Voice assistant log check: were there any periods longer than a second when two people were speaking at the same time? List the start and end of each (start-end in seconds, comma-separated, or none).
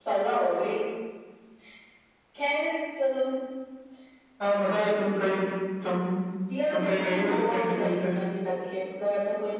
6.7-8.1